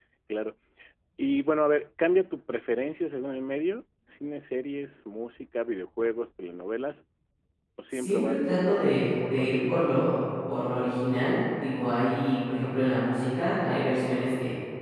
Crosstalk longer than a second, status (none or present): present